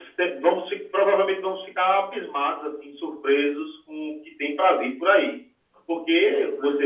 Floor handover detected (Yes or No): No